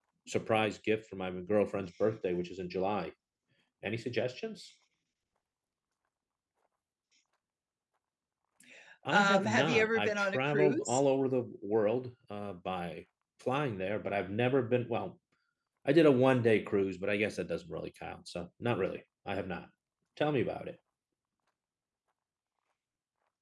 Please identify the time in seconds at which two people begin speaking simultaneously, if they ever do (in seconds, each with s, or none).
9.1 s